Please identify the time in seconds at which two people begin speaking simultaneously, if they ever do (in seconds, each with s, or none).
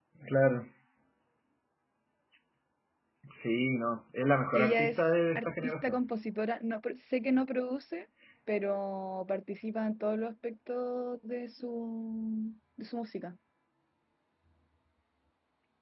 4.5 s